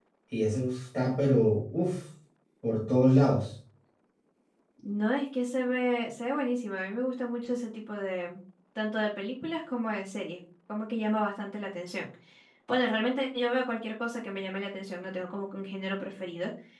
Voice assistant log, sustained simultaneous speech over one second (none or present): none